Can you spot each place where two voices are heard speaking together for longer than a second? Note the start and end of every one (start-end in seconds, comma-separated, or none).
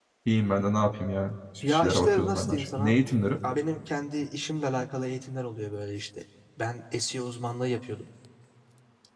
1.7-2.9